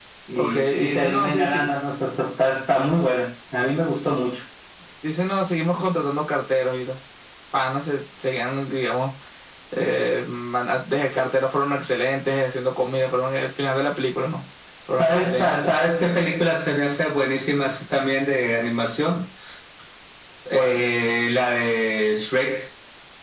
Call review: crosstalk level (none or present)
present